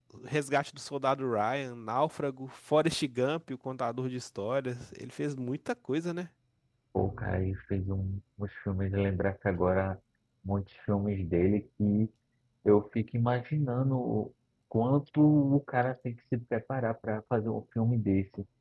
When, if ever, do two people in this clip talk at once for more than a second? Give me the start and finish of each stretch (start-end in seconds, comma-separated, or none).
none